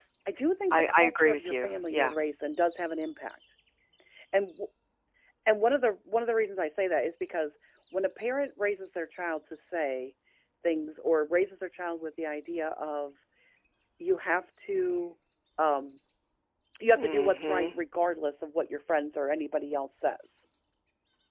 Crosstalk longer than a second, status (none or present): present